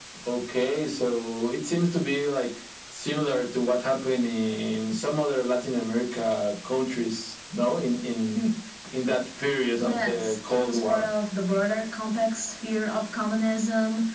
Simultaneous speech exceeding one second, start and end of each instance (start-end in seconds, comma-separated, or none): 9.8-11.1